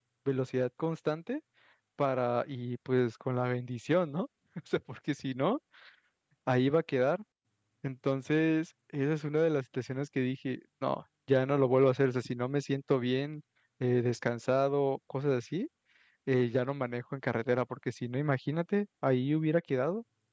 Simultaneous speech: No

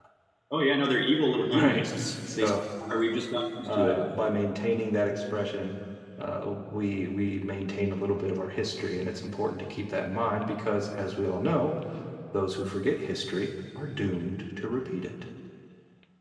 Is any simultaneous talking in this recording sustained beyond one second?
No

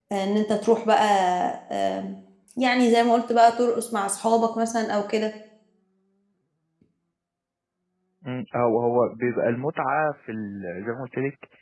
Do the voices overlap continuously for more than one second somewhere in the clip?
No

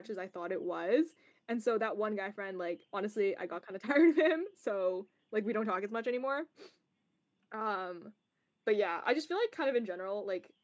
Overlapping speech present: No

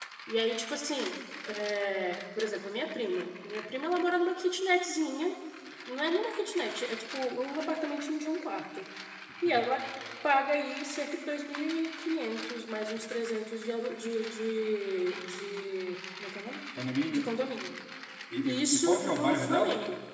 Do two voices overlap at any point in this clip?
Yes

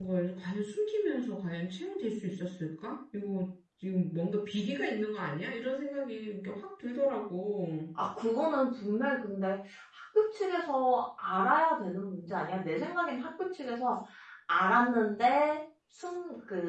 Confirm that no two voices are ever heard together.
Yes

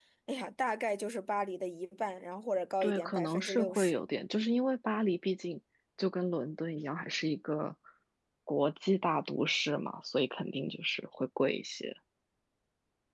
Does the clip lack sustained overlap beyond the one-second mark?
No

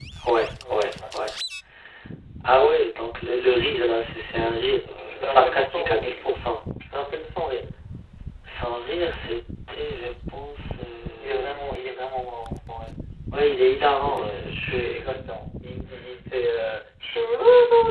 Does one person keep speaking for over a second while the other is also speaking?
Yes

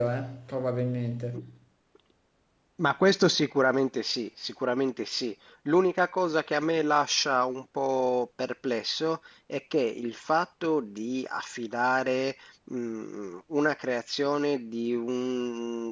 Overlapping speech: No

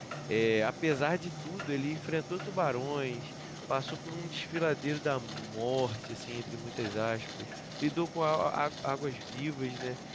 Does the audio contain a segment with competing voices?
No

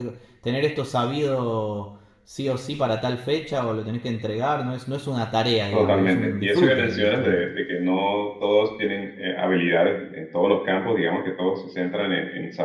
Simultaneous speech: Yes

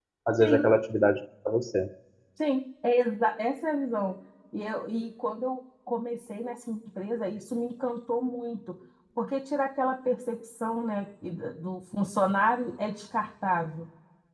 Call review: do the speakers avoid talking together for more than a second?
Yes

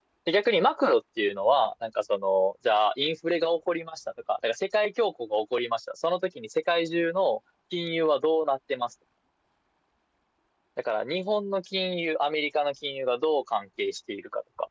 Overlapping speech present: No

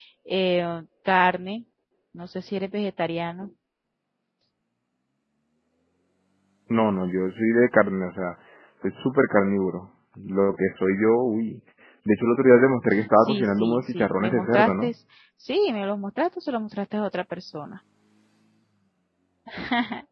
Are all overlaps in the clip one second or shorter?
No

